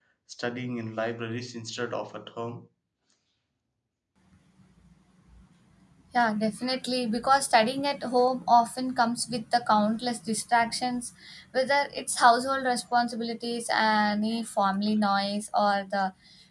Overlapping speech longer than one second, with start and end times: none

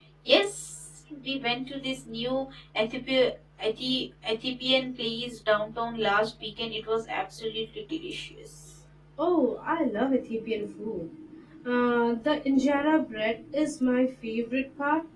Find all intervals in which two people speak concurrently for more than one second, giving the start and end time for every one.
none

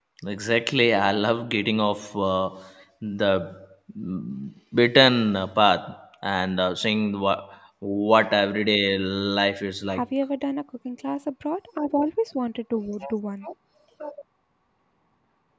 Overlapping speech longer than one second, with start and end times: none

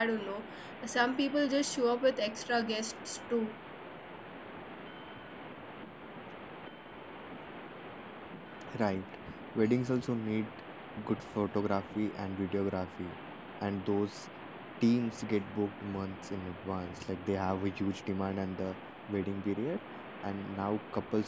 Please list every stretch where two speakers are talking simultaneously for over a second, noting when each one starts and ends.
none

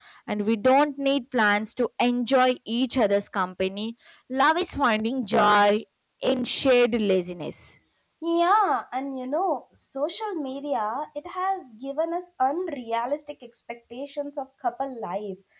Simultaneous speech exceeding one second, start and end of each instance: none

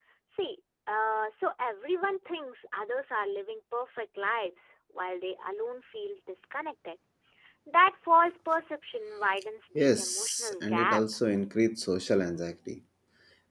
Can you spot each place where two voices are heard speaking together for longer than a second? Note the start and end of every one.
9.8-11.0

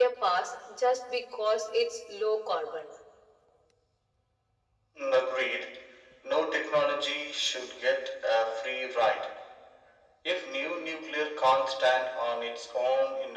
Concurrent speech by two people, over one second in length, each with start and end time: none

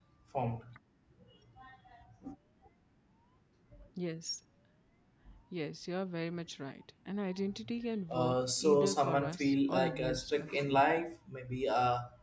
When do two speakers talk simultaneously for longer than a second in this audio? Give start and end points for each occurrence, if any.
8.1-10.6

